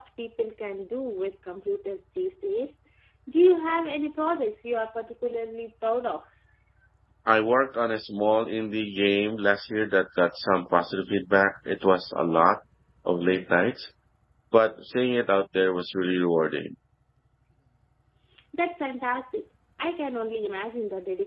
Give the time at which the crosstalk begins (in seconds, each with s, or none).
none